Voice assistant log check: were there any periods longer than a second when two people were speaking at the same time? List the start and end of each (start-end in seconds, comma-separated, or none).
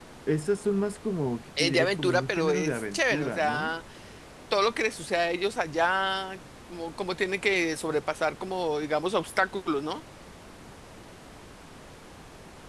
1.6-3.7